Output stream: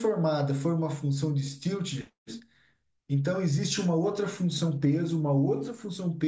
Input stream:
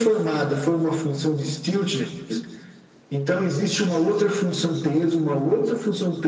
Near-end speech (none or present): none